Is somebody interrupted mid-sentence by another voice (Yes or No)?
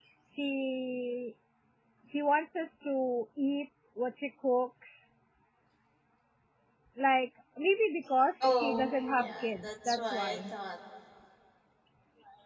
Yes